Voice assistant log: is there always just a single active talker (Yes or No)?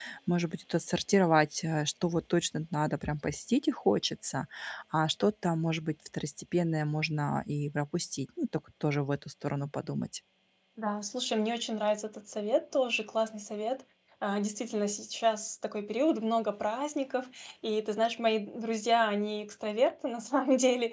Yes